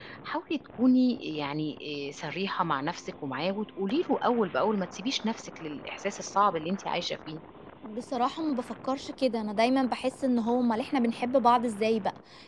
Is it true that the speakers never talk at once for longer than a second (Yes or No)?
Yes